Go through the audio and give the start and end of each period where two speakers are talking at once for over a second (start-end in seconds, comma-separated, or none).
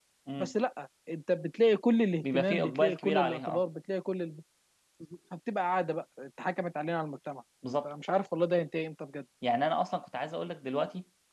2.3-3.6